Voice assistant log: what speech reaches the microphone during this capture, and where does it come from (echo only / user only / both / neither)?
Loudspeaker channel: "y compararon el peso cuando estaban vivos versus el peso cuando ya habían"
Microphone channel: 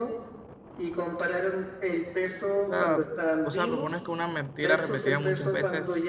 both